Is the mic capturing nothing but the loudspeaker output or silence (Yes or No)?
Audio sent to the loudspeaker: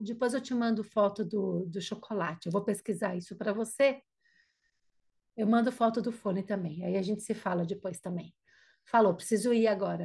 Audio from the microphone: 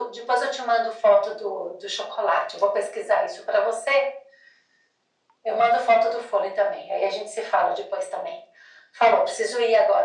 Yes